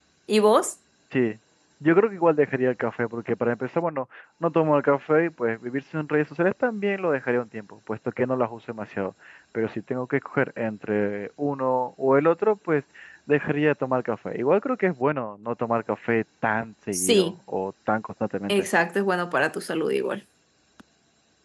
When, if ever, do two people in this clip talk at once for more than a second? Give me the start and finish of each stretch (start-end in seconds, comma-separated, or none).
none